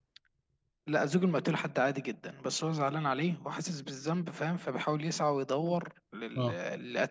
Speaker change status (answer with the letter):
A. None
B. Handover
A